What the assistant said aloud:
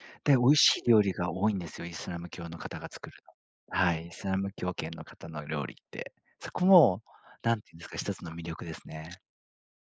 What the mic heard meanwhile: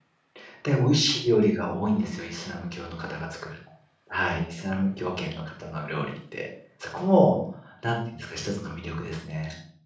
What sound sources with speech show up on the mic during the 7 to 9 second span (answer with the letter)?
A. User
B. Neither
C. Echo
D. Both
C